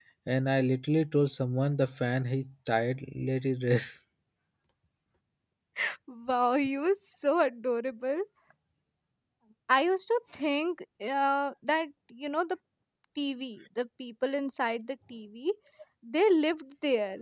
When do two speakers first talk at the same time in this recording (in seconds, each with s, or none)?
none